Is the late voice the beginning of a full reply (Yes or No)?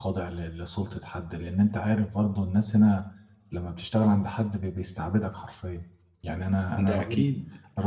No